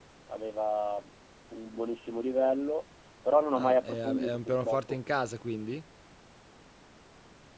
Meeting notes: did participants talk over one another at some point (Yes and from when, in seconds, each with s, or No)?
Yes, from 3.6 s